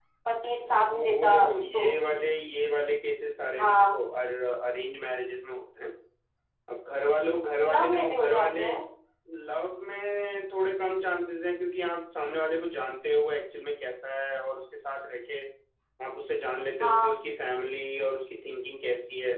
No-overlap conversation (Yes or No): No